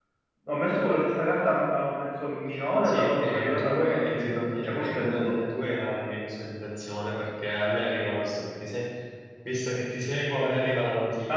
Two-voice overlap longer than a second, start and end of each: 2.8-5.3

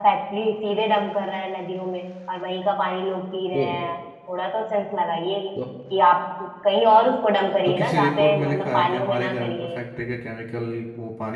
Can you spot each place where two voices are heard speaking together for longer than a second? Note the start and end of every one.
7.7-9.8

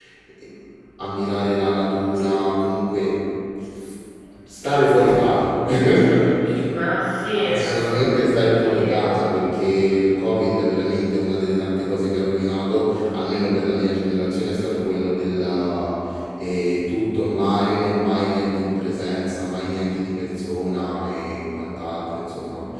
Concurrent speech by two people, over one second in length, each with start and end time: 7.5-9.3

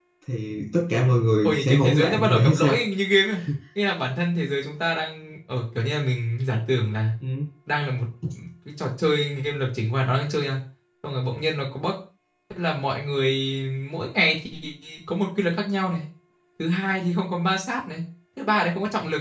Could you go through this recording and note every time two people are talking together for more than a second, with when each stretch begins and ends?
1.4-2.7

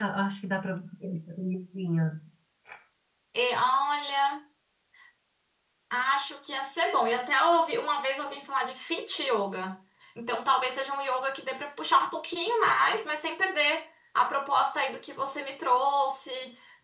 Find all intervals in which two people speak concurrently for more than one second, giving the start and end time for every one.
none

